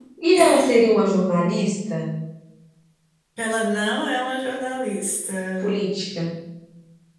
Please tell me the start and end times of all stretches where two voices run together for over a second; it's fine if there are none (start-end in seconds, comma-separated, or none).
none